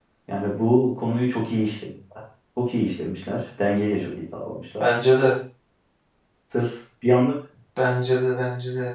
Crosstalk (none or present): none